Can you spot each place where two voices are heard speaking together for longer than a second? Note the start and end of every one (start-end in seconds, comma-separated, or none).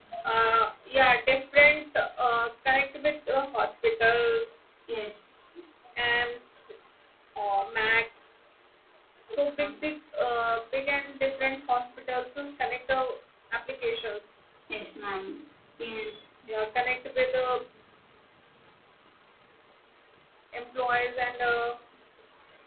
none